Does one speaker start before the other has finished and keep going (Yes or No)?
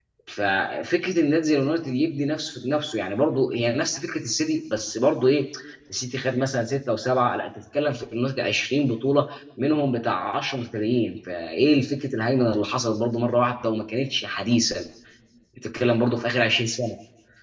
No